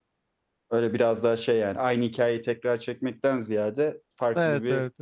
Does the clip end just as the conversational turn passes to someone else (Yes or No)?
No